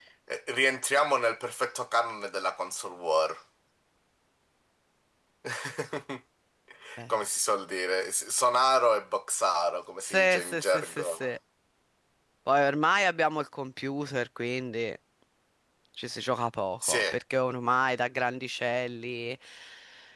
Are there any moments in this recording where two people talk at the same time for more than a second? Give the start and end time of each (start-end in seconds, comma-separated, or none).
10.1-11.3